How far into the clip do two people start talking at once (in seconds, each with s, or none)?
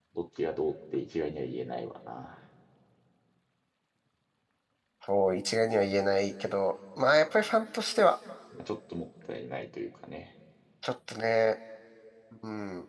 none